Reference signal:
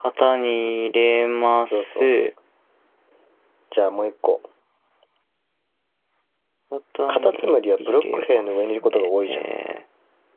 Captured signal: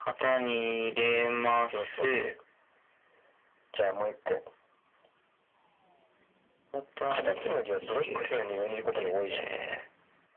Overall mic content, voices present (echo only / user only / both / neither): echo only